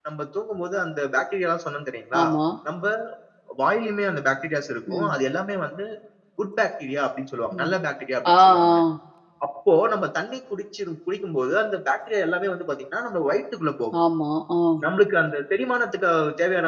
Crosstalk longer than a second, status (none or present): none